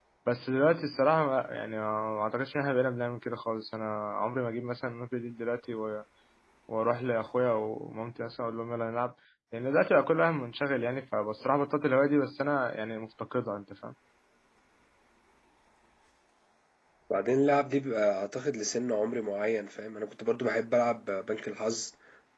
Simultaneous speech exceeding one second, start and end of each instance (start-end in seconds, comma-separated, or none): none